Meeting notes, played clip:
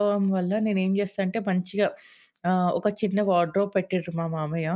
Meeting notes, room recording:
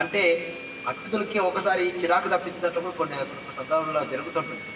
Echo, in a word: none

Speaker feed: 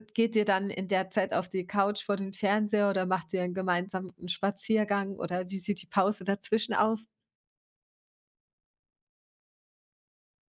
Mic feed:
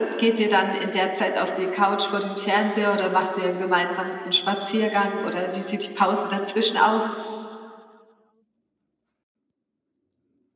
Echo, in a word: present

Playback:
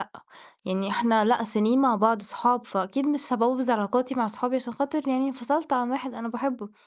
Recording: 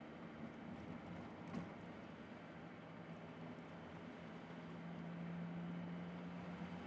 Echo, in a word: none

